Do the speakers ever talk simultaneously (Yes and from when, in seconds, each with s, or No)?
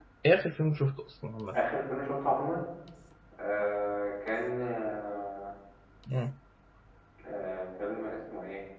No